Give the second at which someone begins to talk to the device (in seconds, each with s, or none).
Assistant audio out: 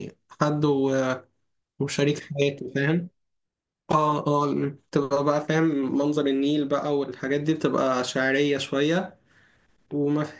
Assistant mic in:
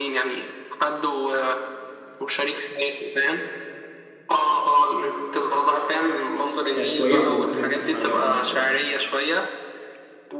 6.7 s